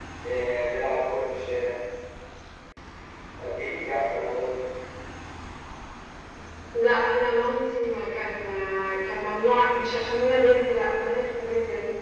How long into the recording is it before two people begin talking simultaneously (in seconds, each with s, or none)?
none